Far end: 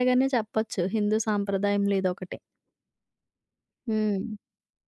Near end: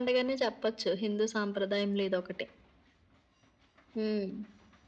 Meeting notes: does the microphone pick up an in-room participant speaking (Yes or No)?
No